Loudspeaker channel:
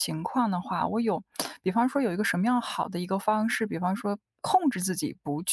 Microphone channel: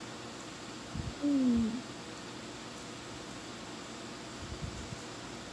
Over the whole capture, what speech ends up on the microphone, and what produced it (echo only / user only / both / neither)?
user only